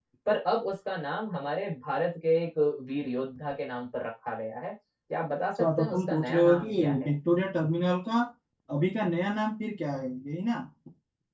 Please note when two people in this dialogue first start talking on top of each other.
6 s

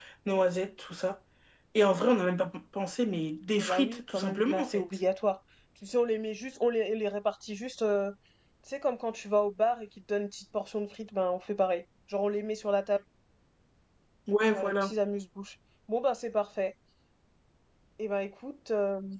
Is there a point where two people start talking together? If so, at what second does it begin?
4 s

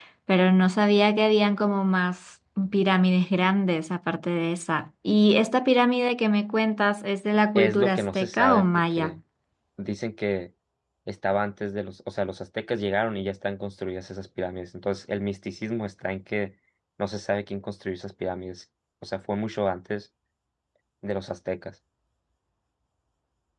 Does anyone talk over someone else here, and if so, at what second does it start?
8 s

